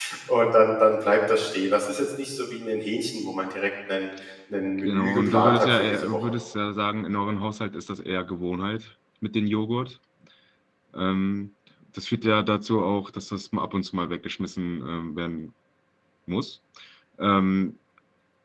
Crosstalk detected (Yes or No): Yes